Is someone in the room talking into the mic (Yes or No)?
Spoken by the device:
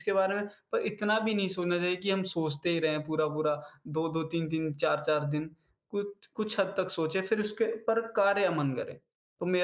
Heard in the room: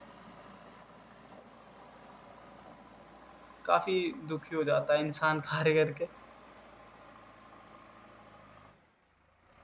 Yes